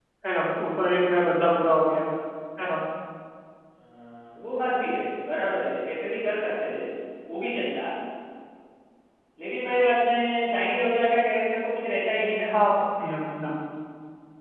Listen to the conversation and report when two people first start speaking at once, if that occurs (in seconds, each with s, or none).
none